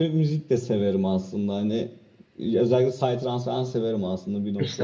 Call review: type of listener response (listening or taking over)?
taking over